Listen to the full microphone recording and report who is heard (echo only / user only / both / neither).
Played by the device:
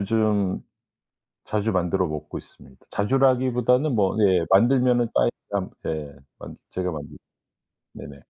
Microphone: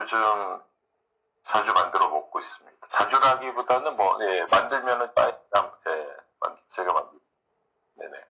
echo only